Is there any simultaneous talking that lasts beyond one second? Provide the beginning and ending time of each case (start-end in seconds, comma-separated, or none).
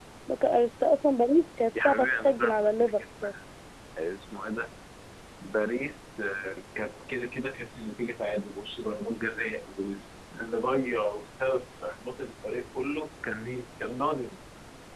1.8-3.0